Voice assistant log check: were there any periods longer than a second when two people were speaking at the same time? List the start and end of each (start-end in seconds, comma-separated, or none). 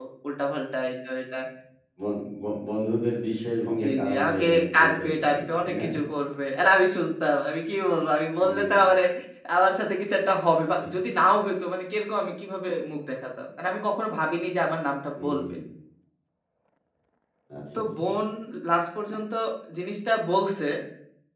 3.8-5.8